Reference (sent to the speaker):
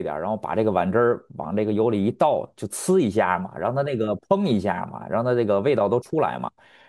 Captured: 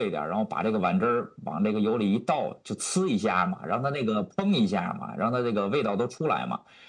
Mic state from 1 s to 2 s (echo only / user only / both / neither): echo only